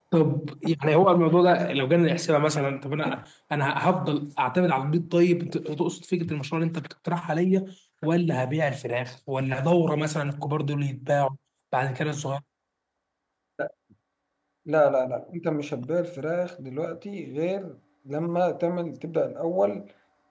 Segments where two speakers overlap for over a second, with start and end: none

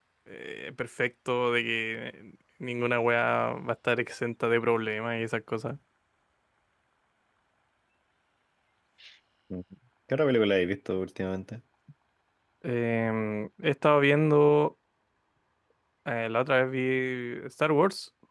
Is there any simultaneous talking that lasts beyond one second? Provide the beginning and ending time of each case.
none

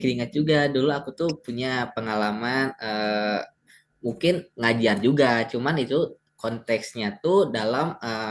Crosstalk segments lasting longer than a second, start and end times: none

